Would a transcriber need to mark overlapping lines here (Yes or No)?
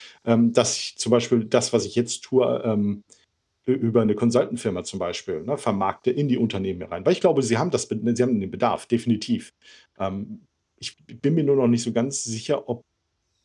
No